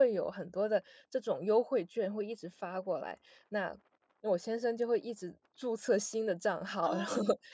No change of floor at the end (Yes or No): No